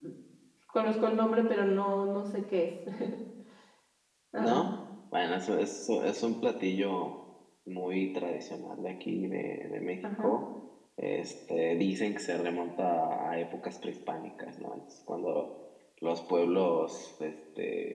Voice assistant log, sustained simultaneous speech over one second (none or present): none